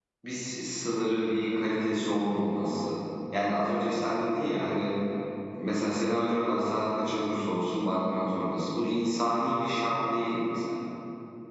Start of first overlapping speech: none

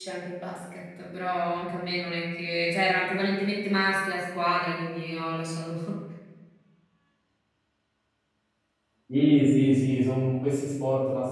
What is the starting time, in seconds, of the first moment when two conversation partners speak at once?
none

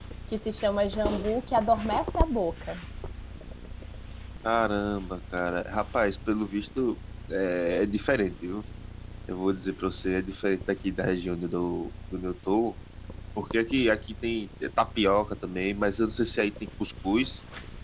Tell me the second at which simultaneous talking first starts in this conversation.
none

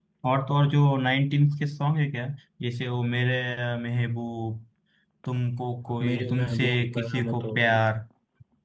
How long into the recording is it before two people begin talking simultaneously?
6.0 s

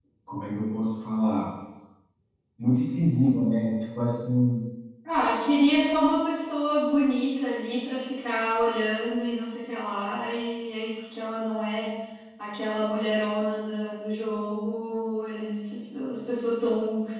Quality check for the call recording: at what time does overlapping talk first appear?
none

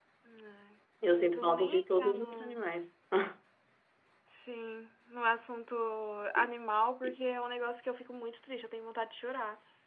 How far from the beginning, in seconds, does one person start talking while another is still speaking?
1.1 s

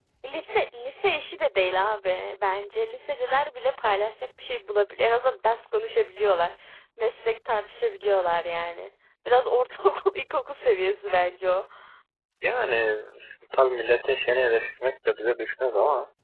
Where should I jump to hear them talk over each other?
none

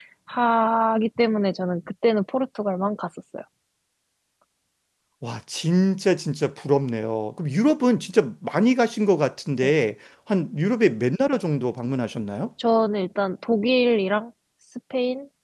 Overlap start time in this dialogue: none

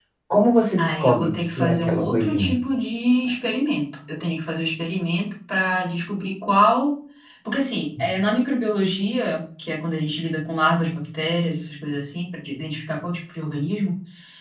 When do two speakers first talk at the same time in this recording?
0.8 s

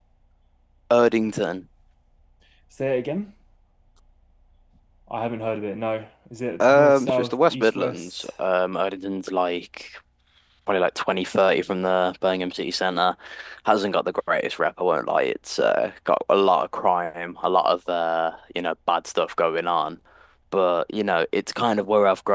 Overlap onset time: 6.6 s

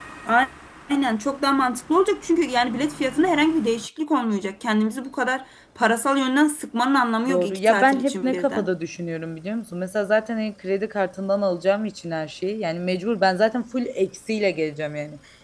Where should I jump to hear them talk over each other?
7.3 s

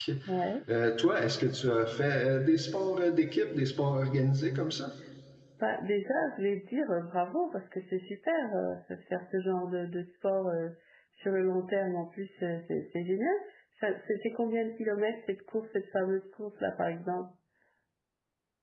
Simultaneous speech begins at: none

